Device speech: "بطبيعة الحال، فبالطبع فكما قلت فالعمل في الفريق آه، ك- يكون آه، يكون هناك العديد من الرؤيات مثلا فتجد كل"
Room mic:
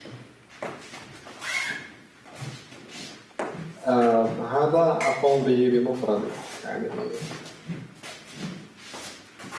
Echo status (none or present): none